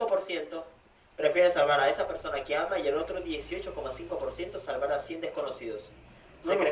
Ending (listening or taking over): taking over